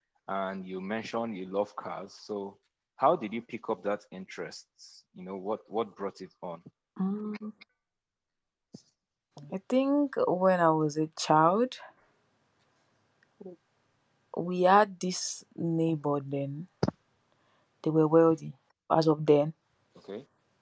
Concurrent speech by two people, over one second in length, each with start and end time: none

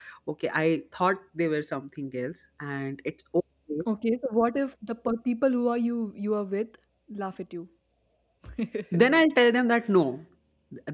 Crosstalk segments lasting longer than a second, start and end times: none

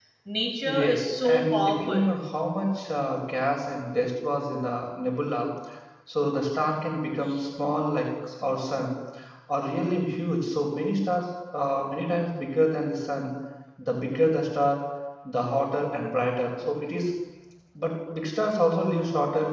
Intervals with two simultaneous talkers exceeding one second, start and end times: 0.7-2.1

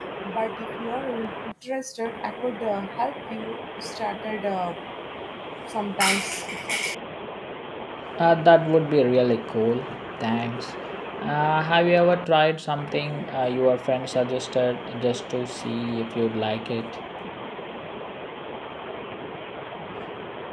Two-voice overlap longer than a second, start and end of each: none

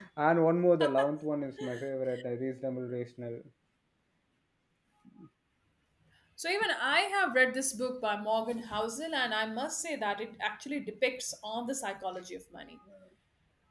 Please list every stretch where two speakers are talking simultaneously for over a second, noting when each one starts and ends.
none

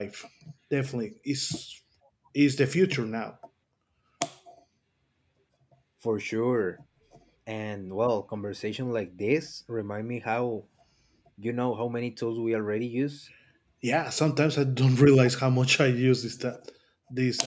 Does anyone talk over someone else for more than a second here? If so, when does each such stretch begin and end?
none

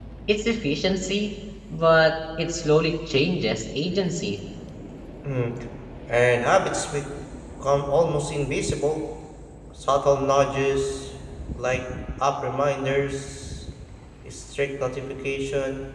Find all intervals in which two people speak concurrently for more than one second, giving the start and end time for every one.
none

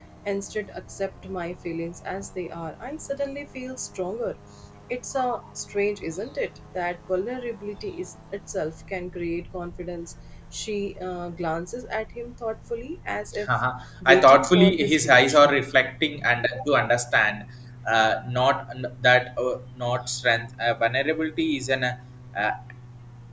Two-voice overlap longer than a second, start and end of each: 14.1-15.6

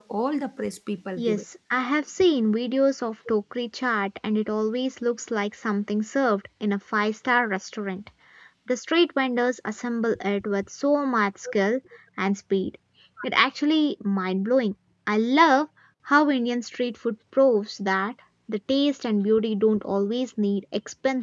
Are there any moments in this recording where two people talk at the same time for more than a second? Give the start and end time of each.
none

